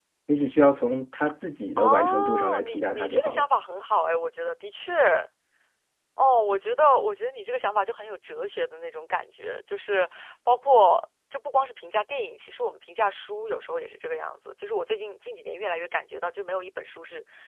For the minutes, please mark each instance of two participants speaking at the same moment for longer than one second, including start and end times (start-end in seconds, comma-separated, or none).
1.8-3.4